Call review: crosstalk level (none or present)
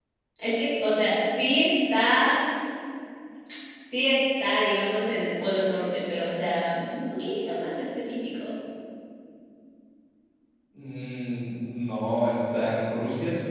none